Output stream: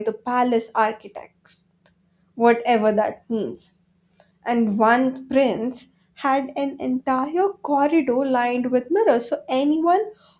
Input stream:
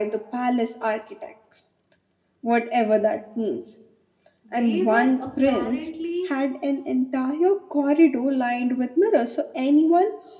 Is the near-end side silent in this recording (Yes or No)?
No